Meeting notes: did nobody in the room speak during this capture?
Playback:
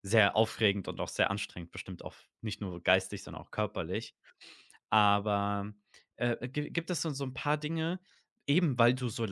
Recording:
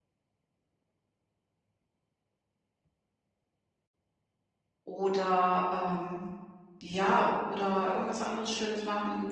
No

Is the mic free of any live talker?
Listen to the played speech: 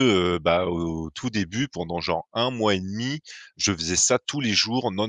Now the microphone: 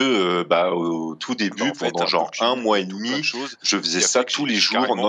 No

